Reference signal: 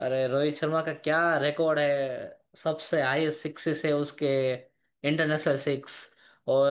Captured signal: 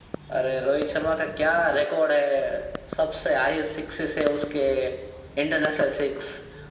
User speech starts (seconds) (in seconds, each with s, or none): none